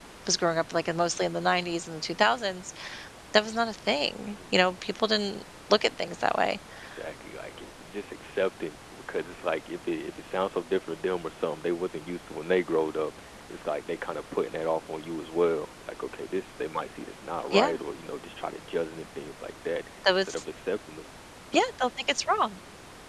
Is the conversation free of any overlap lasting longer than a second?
Yes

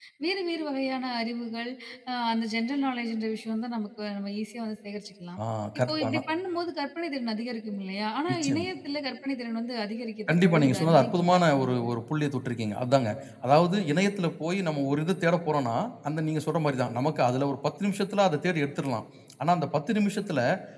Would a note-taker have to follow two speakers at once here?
Yes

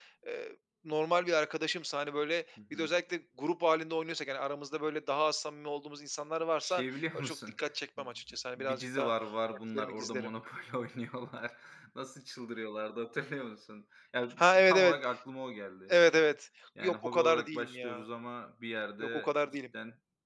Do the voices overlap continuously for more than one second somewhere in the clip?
Yes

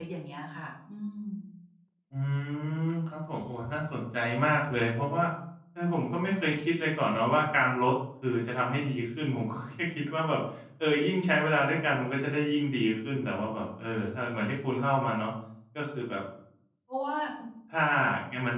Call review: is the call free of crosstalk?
Yes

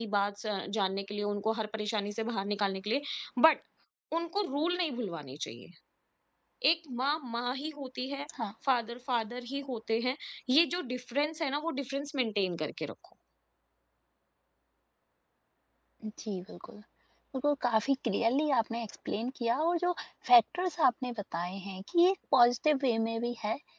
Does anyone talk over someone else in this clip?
No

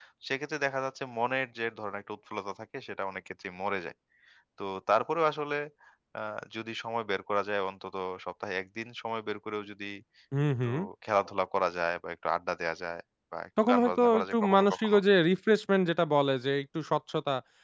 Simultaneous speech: Yes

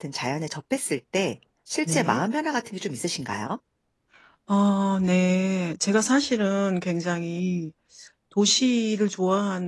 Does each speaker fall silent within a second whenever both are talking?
Yes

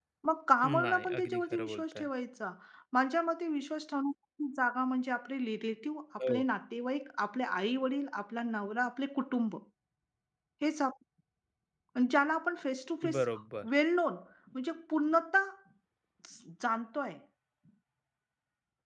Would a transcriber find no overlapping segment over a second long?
No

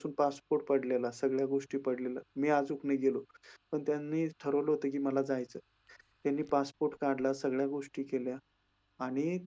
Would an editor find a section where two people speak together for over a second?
No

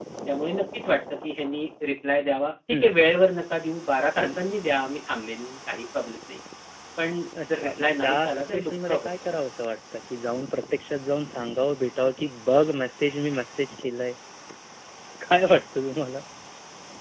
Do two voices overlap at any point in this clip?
Yes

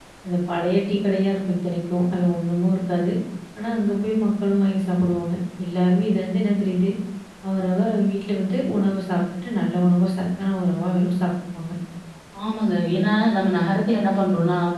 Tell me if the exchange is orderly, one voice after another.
Yes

